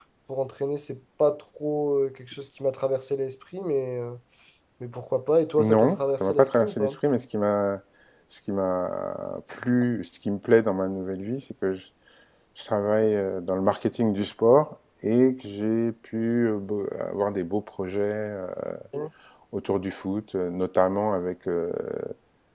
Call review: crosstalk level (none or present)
present